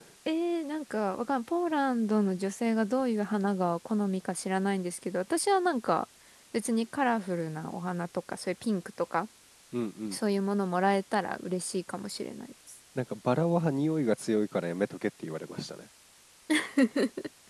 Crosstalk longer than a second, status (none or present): none